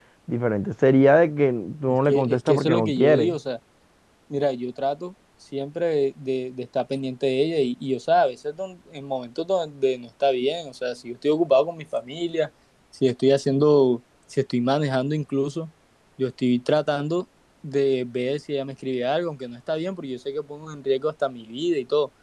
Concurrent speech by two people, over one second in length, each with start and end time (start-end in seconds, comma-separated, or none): 2.1-3.4